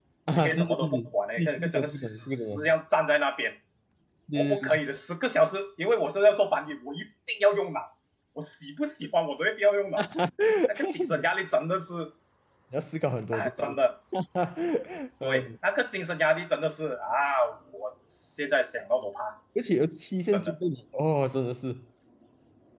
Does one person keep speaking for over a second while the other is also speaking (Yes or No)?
Yes